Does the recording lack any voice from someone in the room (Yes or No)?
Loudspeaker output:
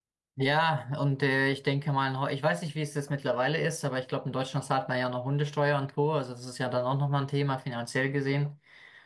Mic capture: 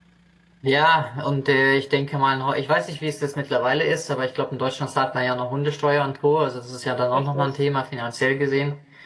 No